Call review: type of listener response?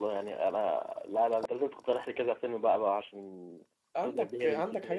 taking over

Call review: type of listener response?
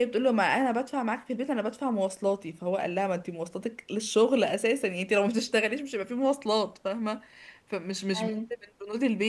listening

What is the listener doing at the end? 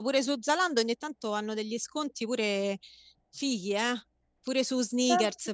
taking over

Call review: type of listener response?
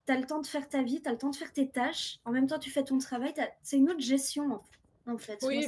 taking over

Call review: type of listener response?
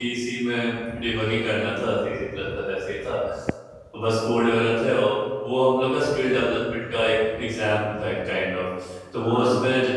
listening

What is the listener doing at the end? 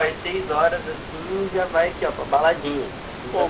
taking over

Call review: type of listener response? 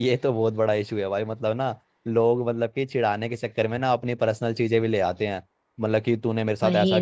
listening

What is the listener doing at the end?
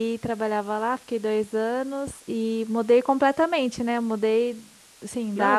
listening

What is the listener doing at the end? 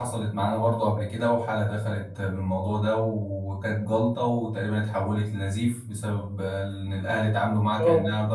listening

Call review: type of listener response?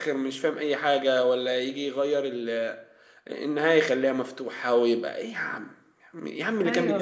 listening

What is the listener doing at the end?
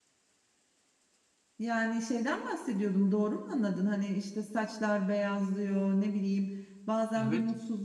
listening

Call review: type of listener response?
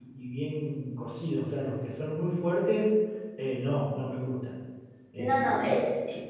taking over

